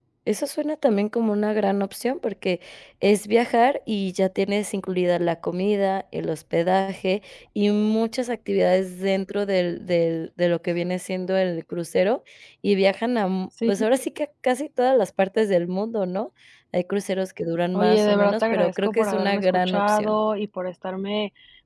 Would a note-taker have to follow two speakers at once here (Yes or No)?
Yes